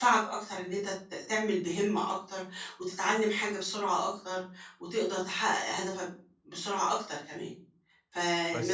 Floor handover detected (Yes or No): No